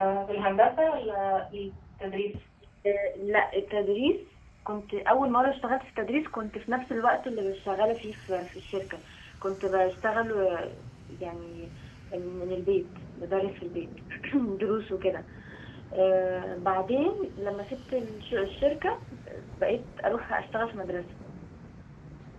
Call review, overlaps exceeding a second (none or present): none